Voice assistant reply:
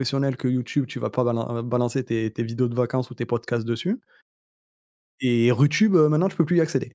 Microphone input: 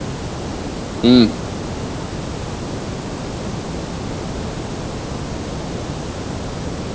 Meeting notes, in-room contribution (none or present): present